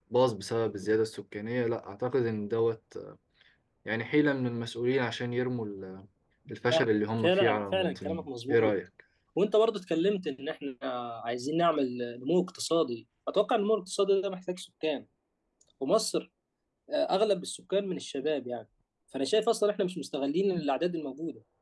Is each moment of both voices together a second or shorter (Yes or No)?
No